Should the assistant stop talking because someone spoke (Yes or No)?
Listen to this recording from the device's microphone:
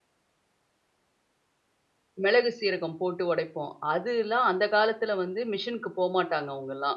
Yes